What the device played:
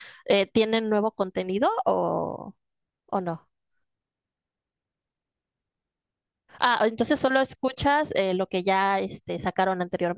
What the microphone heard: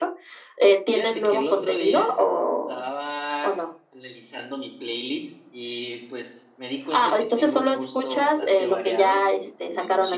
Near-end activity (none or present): present